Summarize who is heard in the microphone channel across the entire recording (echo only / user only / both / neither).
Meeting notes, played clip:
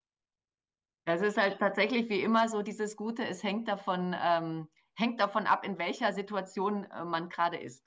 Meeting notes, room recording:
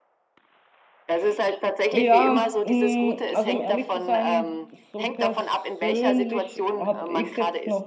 both